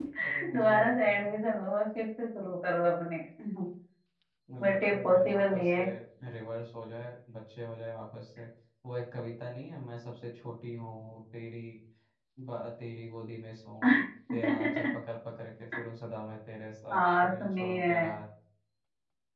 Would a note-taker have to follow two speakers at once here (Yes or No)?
Yes